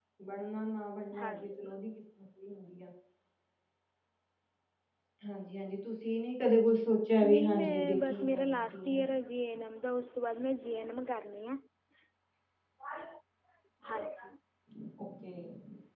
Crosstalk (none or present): present